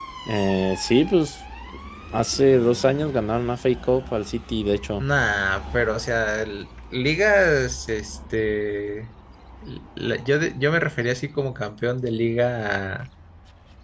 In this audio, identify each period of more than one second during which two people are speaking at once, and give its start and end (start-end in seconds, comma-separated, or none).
none